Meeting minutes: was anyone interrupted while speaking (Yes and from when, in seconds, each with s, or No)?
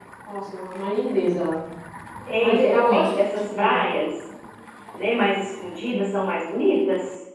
Yes, from 2.4 s